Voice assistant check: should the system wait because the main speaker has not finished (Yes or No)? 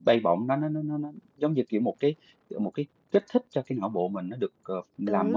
No